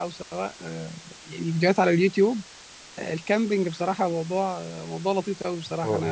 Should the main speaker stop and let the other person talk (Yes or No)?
No